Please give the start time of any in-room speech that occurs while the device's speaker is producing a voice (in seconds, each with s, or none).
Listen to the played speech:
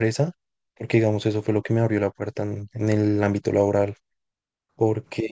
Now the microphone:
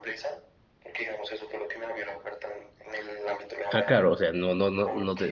3.7 s